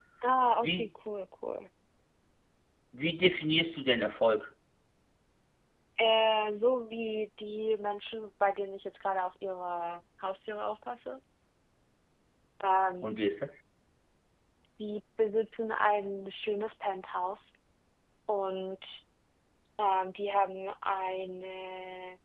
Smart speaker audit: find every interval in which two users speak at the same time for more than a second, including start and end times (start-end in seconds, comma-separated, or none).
none